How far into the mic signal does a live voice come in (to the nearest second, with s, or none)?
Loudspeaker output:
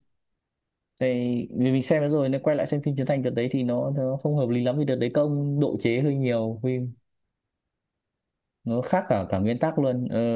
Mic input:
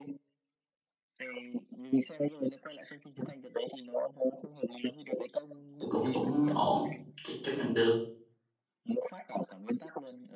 6 s